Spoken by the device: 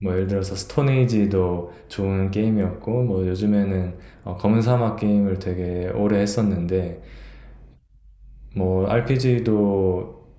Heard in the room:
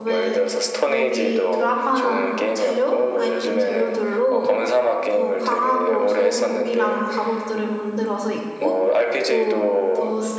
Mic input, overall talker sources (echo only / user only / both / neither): both